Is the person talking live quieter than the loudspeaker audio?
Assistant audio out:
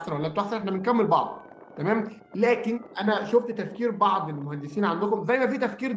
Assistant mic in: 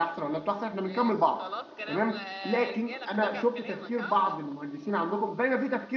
Yes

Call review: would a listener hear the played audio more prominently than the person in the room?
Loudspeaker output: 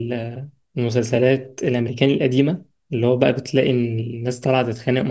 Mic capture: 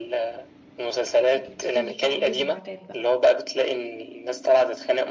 Yes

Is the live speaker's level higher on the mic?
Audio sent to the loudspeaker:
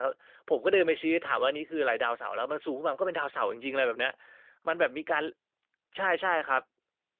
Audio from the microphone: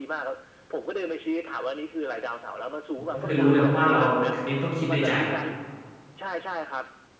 Yes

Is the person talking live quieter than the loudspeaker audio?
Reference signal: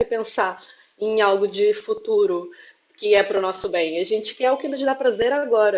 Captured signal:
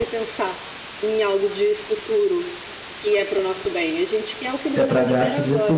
No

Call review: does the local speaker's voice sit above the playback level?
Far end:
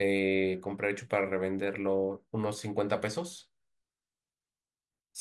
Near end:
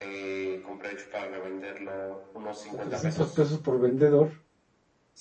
Yes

